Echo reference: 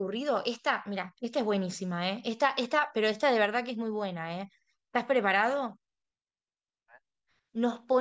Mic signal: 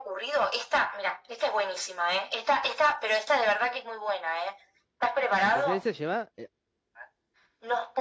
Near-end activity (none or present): present